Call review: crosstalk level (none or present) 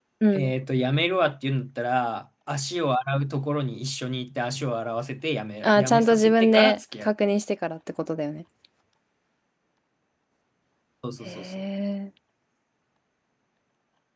present